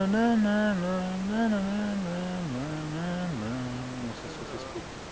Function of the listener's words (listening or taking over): taking over